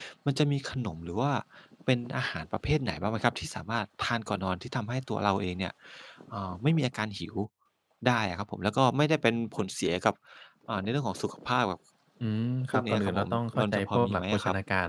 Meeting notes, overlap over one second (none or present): present